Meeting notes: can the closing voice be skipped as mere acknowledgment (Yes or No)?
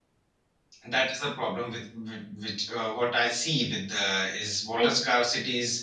Yes